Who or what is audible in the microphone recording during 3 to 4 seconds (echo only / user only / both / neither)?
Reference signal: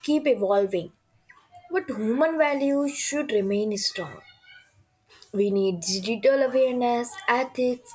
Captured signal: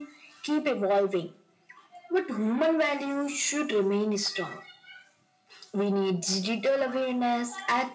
echo only